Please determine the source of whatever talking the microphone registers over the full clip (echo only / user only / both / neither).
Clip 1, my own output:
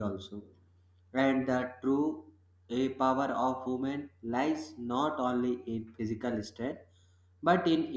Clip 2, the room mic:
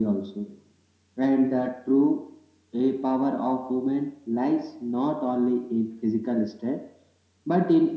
echo only